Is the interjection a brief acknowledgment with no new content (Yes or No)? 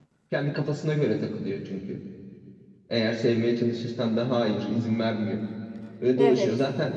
Yes